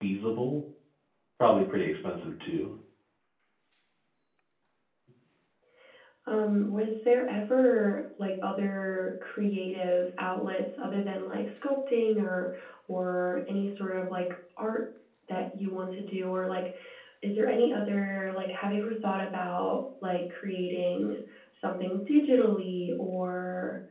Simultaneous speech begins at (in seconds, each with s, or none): none